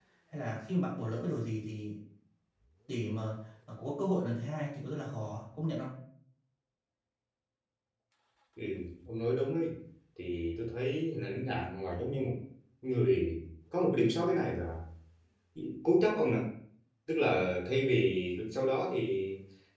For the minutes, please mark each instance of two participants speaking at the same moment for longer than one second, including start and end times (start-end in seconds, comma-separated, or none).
none